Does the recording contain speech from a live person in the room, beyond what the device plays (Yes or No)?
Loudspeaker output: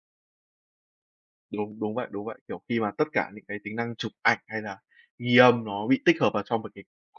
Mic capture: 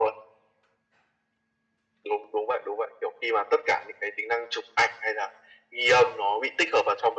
No